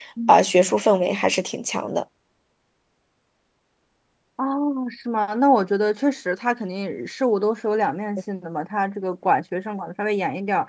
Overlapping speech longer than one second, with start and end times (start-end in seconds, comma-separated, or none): none